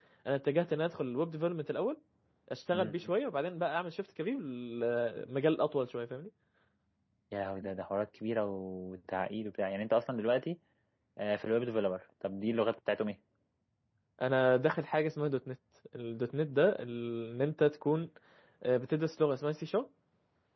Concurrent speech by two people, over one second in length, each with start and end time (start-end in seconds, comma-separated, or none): none